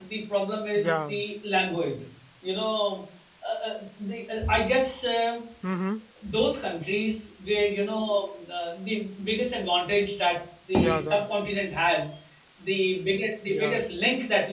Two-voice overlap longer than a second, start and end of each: none

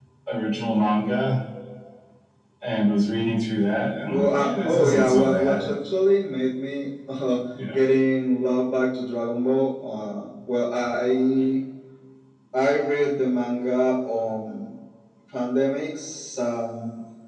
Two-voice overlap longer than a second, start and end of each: 4.1-5.6

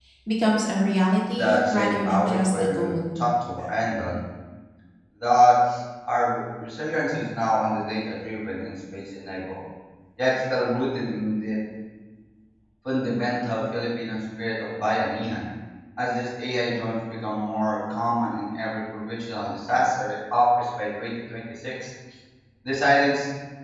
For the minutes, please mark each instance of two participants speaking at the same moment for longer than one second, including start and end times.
1.4-3.2

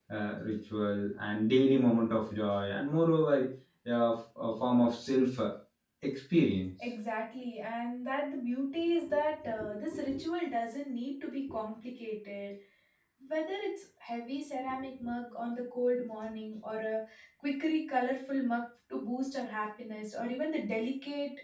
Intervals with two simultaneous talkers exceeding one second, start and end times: none

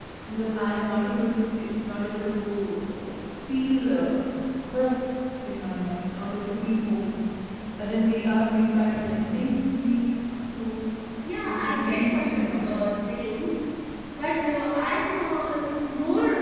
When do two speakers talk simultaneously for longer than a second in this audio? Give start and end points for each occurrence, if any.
11.5-12.7

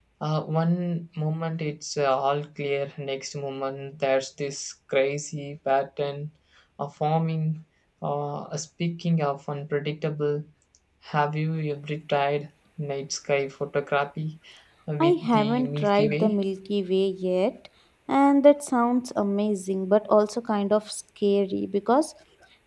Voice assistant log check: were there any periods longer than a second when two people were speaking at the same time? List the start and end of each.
15.0-16.3

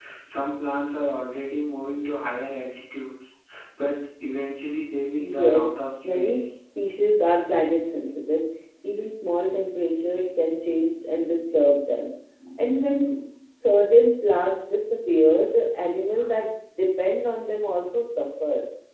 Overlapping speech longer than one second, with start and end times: 5.2-6.4

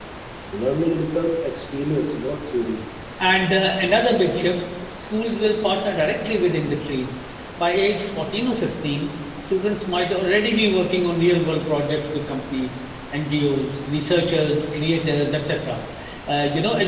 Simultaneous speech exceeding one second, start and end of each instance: none

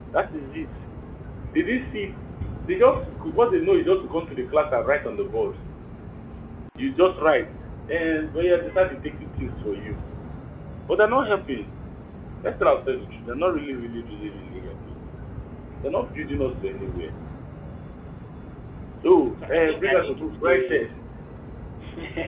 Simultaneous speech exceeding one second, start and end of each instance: 19.5-20.9

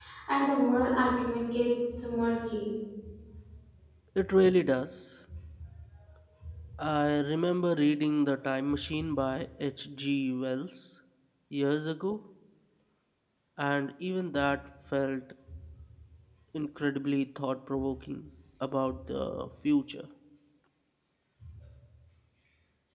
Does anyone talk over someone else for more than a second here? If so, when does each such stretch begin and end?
none

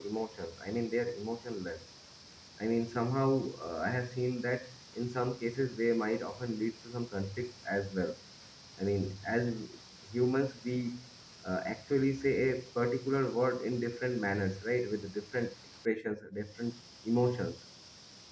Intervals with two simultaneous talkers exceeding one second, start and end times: none

